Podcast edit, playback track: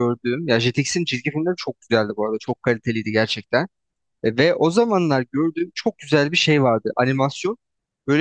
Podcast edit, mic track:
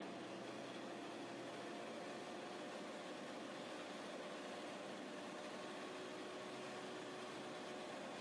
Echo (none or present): none